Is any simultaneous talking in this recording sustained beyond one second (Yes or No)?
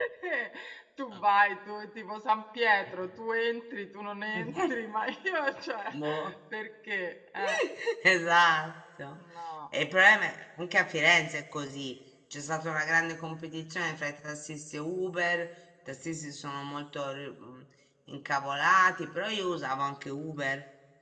No